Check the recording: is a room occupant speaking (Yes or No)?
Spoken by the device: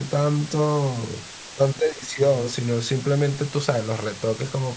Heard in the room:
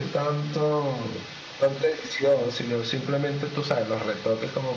No